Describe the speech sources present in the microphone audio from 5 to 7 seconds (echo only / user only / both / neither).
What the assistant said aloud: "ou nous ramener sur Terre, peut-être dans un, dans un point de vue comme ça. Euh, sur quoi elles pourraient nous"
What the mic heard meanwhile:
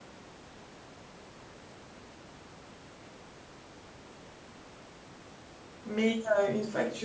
user only